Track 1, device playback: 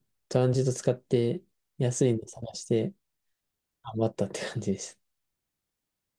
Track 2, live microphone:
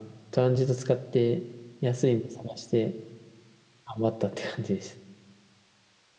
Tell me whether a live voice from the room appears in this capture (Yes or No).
No